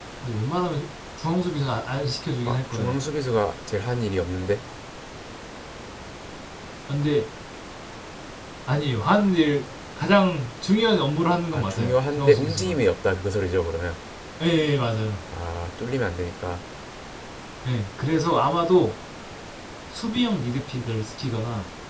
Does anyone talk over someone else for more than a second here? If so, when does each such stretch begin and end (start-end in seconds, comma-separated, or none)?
11.5-12.8